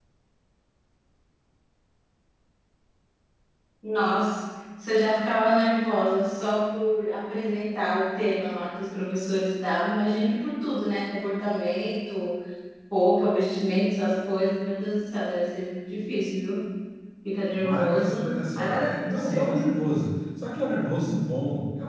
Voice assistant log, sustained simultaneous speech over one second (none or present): present